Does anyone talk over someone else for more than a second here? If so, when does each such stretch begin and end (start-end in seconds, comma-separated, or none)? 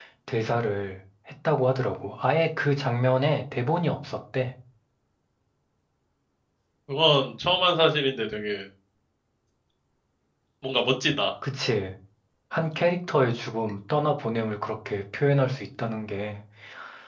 none